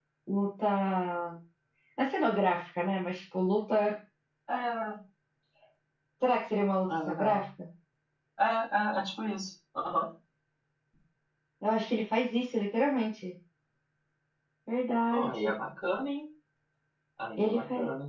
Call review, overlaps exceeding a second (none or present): none